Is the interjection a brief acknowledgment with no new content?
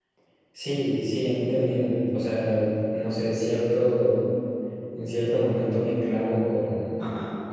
Yes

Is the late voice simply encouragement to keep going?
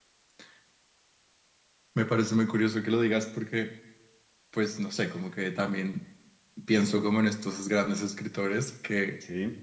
Yes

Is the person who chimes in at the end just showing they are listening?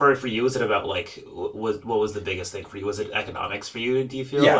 No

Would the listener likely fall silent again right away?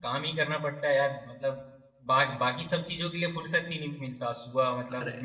Yes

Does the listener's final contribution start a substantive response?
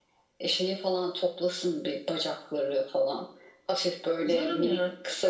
No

